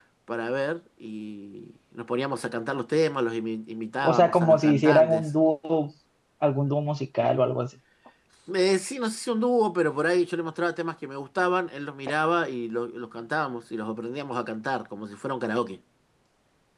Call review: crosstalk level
present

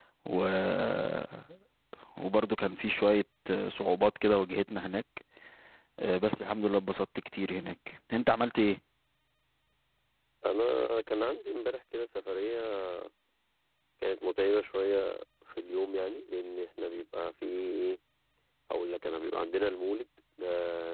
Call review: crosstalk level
none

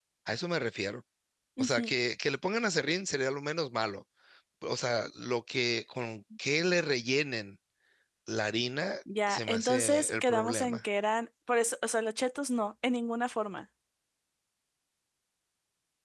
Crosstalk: present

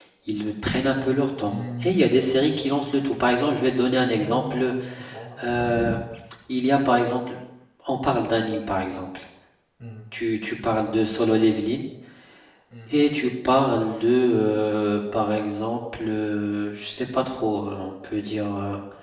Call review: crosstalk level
present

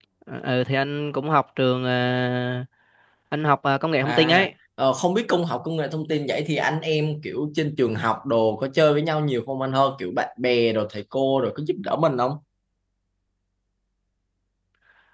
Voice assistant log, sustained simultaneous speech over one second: none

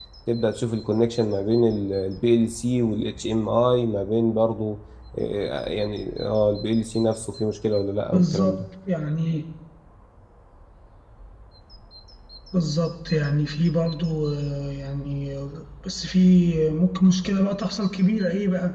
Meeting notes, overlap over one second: none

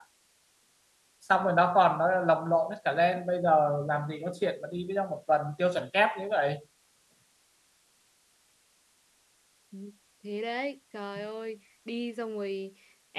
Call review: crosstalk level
none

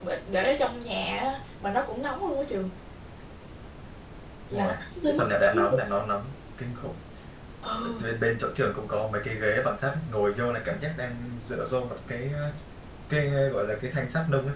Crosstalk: present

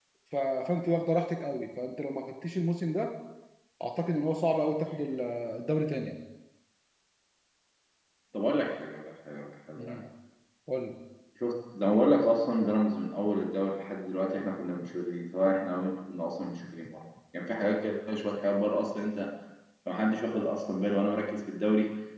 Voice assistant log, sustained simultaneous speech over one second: none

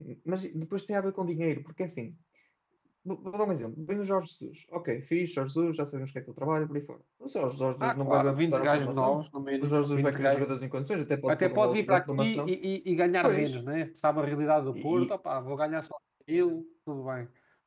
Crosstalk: present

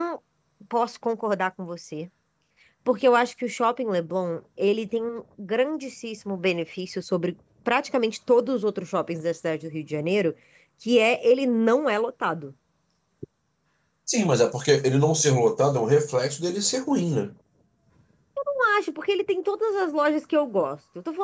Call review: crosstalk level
none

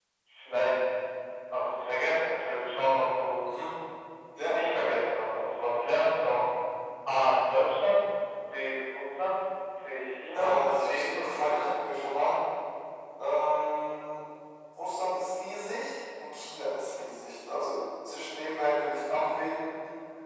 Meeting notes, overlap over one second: present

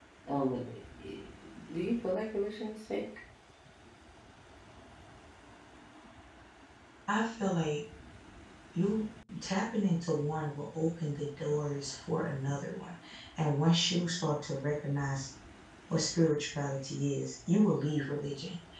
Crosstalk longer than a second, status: none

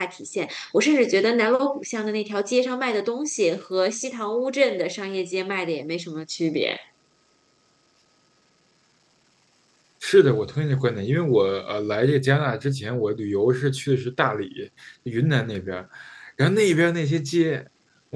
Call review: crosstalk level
none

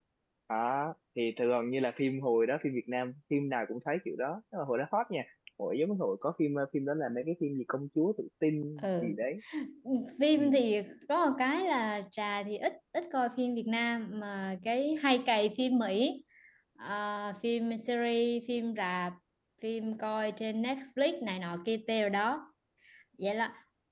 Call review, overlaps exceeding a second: none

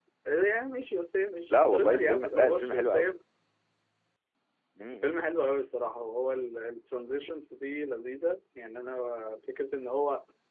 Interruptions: present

